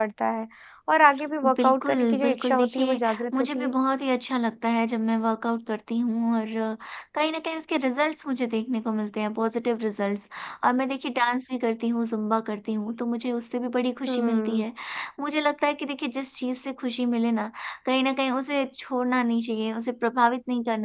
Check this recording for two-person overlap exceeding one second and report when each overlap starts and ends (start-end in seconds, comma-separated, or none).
1.4-3.7